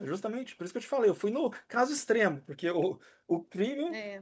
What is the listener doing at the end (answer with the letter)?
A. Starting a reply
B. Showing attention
B